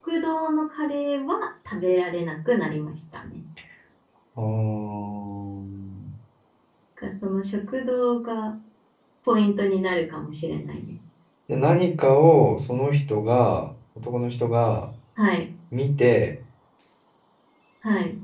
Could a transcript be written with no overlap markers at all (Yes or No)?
Yes